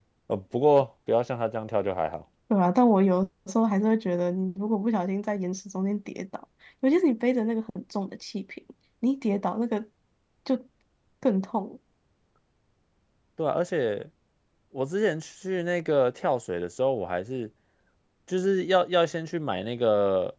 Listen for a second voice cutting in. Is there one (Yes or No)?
No